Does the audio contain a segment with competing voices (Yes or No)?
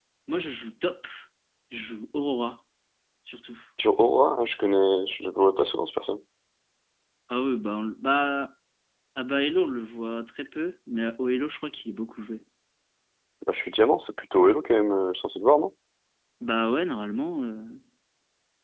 No